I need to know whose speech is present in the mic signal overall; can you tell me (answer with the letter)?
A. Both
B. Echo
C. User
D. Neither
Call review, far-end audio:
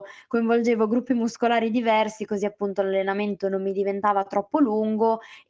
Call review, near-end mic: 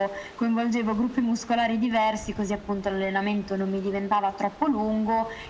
B